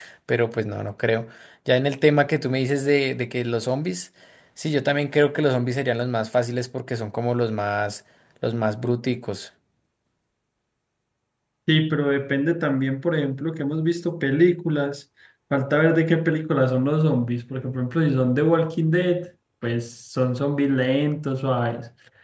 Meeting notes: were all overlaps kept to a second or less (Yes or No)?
Yes